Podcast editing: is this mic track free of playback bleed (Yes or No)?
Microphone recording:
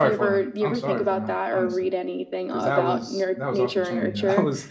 No